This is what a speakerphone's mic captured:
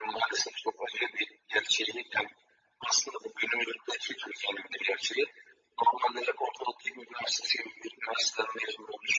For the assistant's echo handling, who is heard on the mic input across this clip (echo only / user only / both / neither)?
echo only